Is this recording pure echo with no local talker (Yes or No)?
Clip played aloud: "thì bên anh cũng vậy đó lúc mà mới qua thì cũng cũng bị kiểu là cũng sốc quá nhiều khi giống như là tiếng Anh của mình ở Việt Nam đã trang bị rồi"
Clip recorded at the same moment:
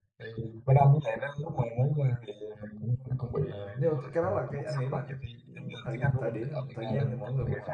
No